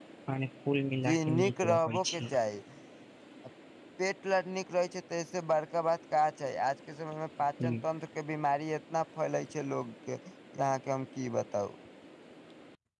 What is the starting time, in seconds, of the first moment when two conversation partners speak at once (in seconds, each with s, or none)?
1.0 s